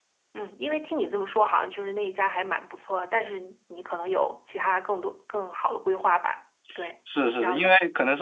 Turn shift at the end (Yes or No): Yes